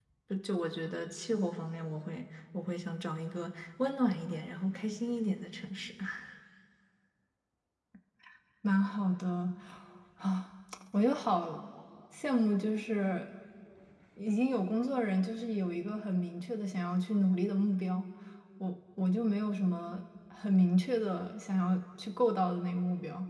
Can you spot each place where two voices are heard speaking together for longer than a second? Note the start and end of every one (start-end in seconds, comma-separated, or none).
none